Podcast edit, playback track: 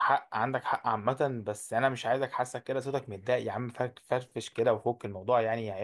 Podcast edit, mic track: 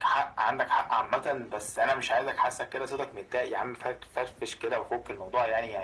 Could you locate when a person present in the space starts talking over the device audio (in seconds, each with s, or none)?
none